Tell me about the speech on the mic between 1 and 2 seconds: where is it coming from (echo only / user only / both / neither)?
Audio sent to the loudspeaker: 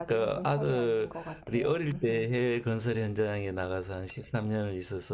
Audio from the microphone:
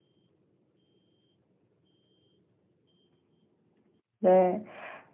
neither